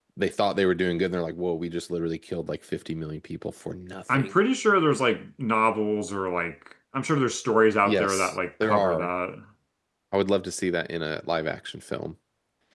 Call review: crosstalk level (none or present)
present